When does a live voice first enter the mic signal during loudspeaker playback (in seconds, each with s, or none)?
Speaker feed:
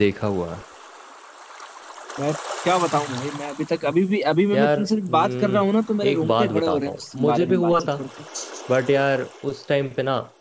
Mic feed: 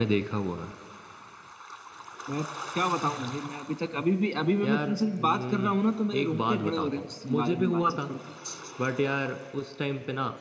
none